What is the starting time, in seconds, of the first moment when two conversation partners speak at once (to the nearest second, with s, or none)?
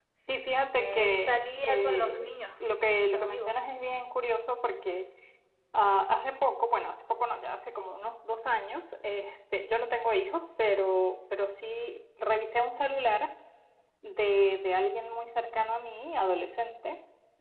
1 s